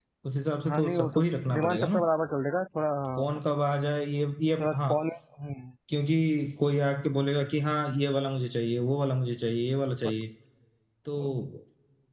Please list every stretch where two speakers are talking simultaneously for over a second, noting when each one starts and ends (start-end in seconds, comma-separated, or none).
0.7-2.0